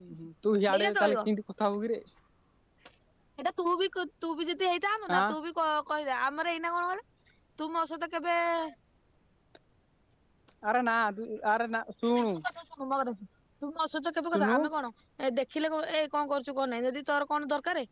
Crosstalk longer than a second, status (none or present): none